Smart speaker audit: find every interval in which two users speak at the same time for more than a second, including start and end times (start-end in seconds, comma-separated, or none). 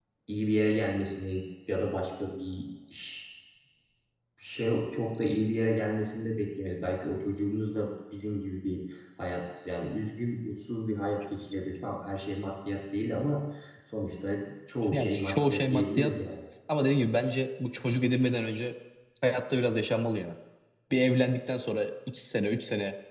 14.9-16.1